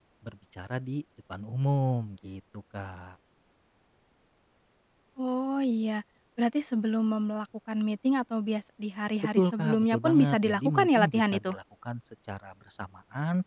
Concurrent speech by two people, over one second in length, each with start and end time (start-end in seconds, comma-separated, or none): 9.4-11.5